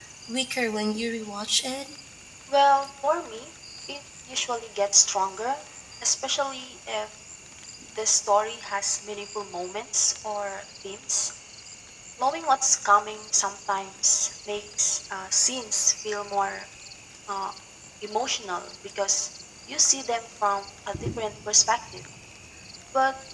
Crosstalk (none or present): none